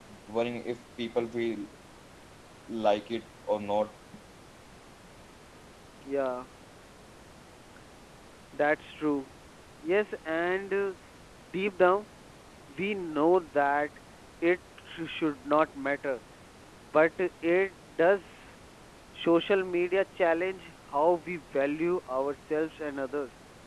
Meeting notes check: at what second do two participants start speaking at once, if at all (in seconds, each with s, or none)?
none